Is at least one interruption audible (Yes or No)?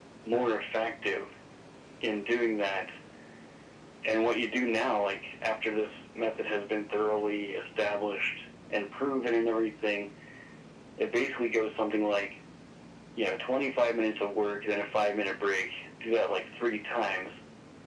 No